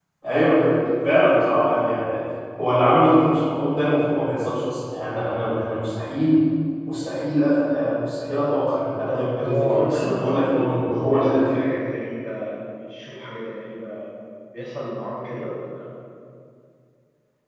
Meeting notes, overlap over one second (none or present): present